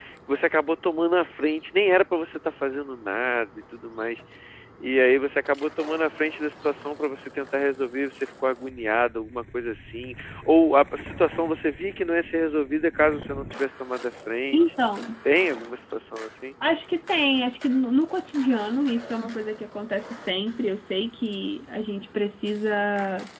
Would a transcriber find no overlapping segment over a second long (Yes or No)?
Yes